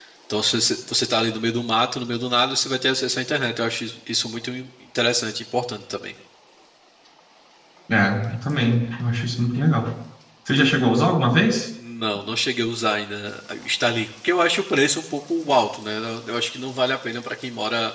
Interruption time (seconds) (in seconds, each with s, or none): none